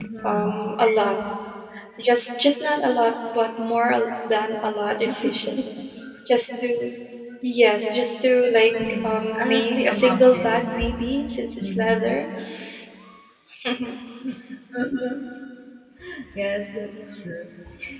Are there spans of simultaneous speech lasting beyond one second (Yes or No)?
Yes